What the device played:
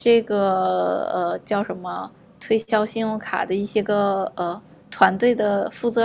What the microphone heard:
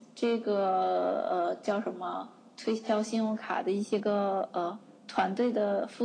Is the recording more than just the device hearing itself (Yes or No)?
No